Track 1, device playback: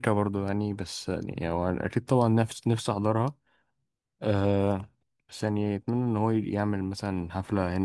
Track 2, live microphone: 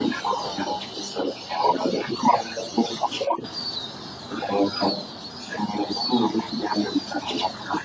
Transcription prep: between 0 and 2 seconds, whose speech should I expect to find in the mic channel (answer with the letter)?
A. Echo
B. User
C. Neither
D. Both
A